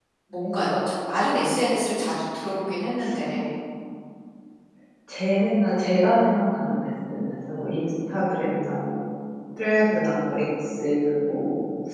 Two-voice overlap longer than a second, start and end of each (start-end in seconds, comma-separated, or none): none